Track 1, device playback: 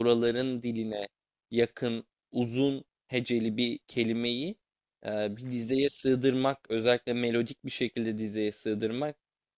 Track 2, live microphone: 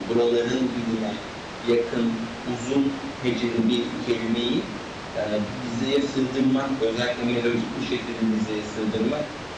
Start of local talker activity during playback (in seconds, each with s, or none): none